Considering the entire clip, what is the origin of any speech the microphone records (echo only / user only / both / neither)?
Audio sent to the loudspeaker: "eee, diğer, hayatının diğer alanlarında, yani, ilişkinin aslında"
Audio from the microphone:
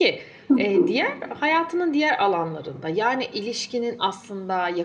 both